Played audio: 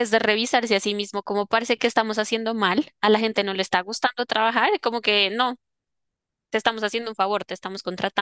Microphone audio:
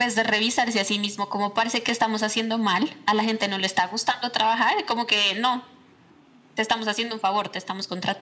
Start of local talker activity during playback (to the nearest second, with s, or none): none